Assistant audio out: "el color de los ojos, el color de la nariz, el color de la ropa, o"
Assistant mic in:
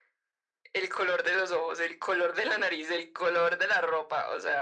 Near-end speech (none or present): none